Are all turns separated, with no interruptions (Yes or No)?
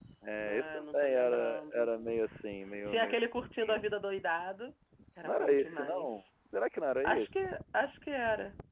No